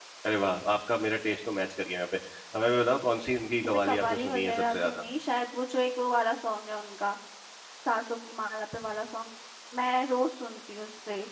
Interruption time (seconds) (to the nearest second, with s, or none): 4 s